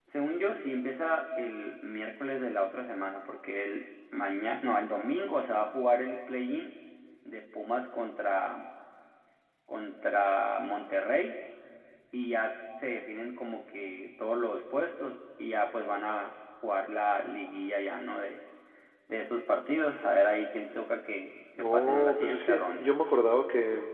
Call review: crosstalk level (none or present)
present